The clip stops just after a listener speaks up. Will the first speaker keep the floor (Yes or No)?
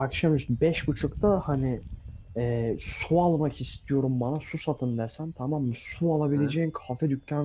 Yes